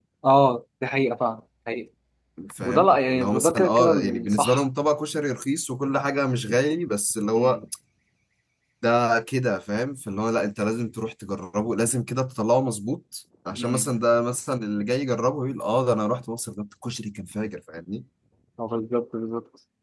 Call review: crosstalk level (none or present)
present